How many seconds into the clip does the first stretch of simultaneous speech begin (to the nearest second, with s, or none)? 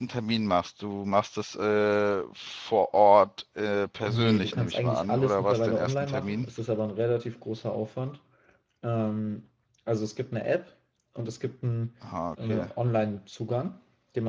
4 s